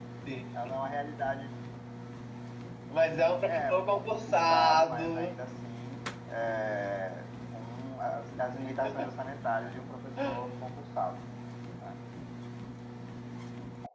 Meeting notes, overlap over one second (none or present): present